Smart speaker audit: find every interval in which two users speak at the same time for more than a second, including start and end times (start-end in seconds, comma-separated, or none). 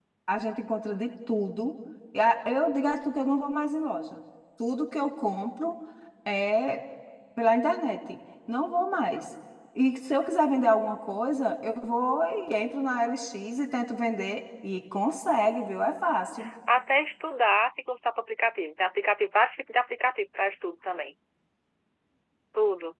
none